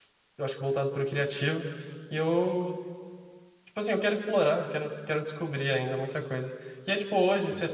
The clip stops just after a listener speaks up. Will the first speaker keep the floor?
Yes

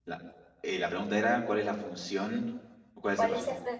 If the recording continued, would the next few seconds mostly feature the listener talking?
Yes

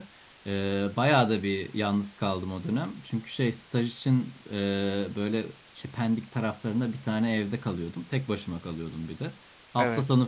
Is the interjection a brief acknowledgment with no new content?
Yes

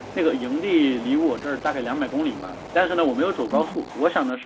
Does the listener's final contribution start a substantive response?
No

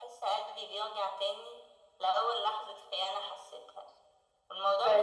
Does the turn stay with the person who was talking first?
Yes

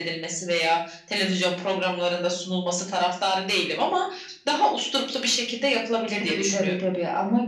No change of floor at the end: No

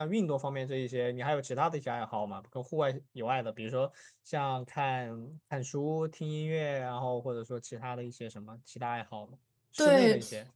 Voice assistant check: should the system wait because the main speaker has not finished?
No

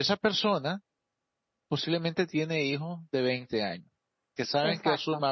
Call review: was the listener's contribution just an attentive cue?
Yes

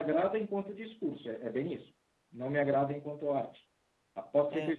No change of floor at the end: Yes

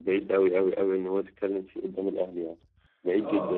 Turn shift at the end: Yes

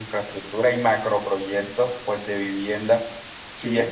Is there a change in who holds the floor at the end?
No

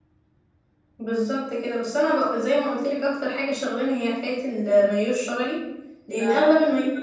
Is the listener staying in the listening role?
Yes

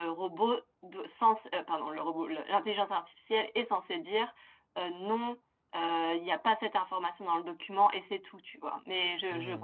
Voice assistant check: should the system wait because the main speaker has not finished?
Yes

